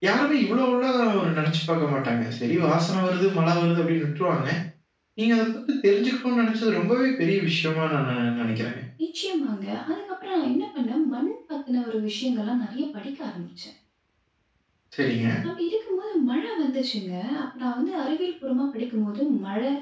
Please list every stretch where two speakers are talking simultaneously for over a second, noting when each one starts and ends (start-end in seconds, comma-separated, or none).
none